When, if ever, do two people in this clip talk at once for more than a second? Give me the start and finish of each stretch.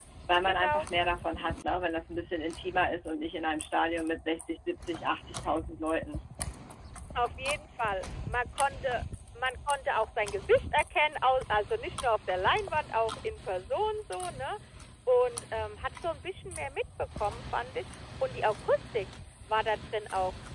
none

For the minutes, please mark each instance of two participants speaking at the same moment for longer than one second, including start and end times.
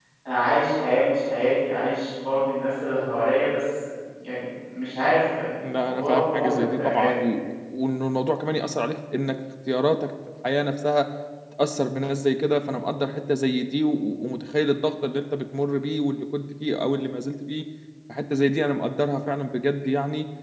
5.8-7.2

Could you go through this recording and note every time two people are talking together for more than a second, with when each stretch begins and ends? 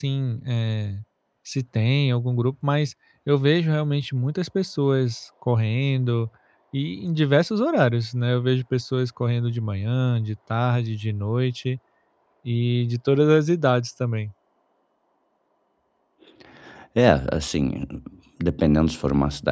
none

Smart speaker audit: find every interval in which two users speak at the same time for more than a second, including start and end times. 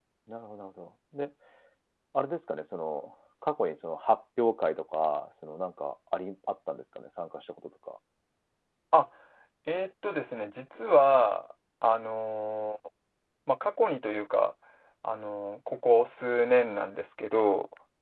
none

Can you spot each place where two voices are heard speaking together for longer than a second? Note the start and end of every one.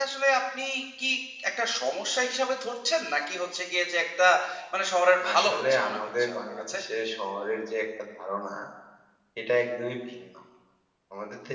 5.3-6.8

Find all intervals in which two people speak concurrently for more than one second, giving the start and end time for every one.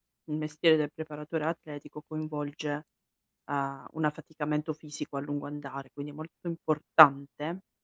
none

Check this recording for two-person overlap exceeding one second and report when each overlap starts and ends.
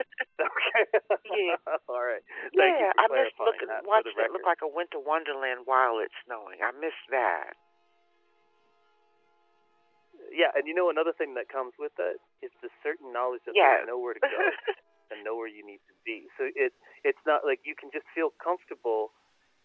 2.6-4.5

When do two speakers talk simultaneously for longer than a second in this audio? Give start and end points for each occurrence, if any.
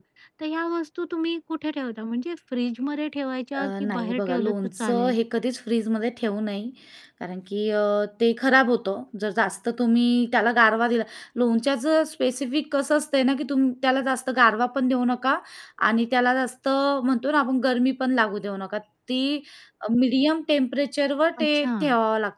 3.6-5.2

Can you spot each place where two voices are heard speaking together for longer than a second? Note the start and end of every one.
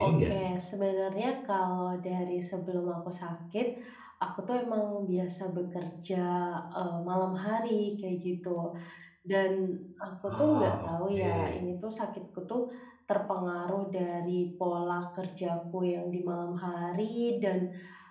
10.3-11.6

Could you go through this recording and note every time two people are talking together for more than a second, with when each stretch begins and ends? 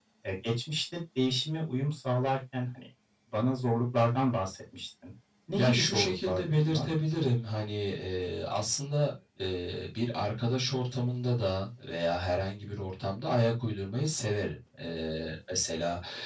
5.6-6.9

